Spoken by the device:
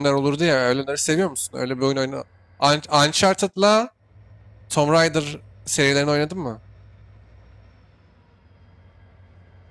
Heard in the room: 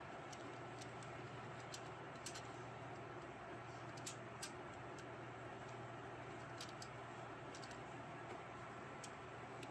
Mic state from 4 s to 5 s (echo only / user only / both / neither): neither